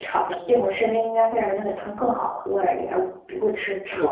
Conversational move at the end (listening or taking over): taking over